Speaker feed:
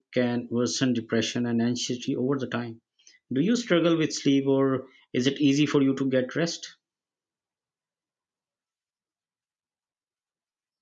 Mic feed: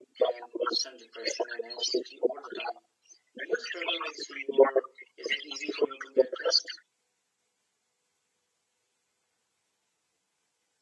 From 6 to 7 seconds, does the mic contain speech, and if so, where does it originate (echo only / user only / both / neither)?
echo only